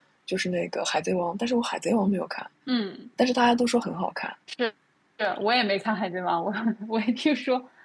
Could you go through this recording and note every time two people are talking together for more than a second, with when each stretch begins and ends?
none

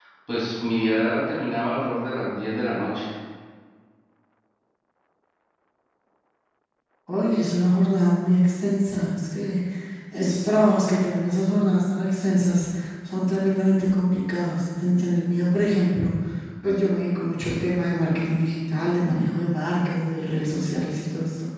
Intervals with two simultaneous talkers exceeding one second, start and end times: none

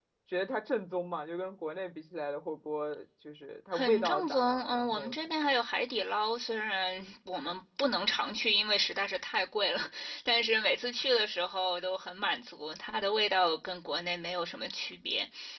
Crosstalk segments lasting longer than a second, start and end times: 3.7-5.5

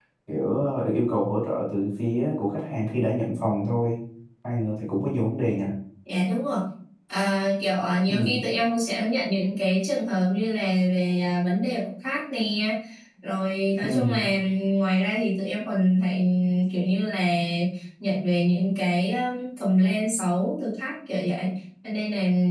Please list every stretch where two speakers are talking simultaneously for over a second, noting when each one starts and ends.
none

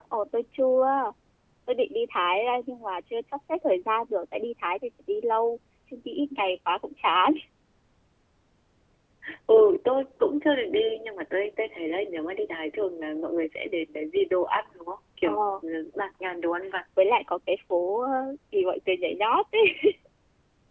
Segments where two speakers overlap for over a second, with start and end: none

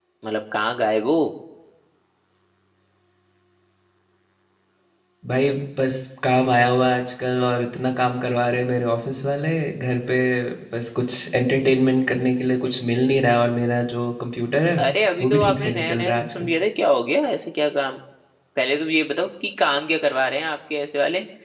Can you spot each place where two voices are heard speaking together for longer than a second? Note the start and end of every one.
15.2-16.5

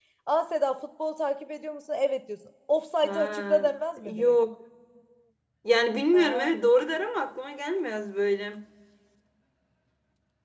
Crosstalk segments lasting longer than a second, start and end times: 3.0-4.3

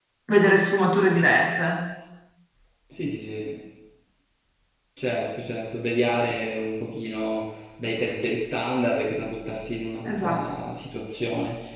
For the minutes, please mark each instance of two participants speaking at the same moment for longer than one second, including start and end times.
none

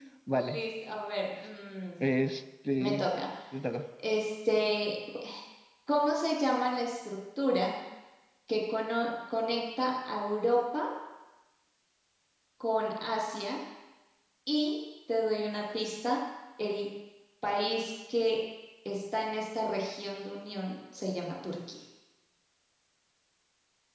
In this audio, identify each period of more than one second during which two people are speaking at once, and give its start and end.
none

